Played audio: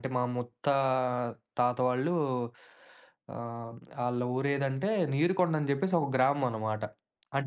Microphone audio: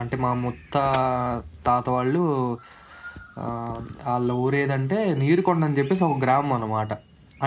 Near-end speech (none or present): none